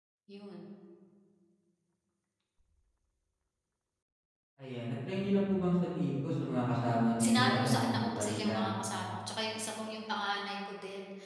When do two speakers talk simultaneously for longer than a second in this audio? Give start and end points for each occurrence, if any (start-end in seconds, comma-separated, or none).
7.2-8.6